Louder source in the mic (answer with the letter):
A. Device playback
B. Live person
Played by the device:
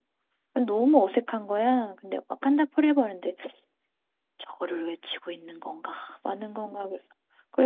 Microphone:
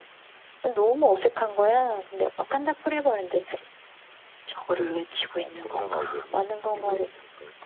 A